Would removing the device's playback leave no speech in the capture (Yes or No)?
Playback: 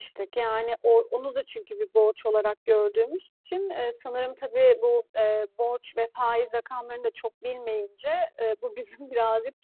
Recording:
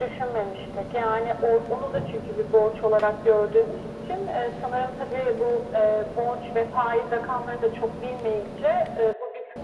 Yes